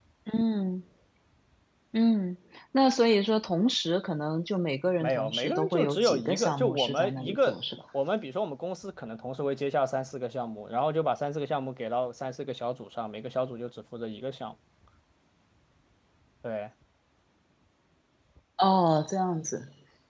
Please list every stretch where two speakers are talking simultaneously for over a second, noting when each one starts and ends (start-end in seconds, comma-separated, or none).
5.0-7.6